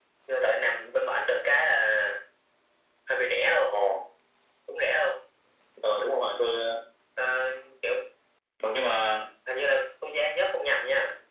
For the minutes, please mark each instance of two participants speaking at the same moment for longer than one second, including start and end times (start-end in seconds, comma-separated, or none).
none